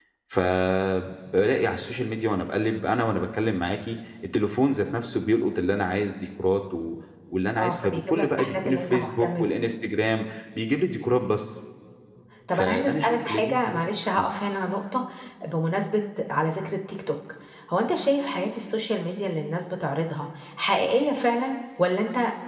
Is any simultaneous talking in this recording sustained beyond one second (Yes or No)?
Yes